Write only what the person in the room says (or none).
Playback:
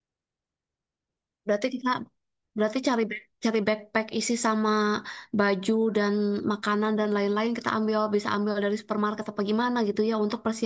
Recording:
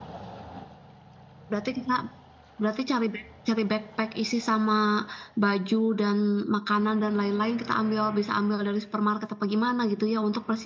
none